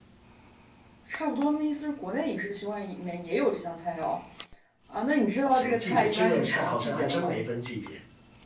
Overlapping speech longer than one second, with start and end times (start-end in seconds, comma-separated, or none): 5.5-7.4